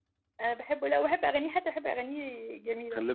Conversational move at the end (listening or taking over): taking over